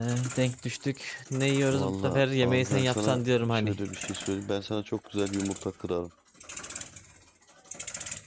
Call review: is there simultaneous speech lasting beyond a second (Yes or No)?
Yes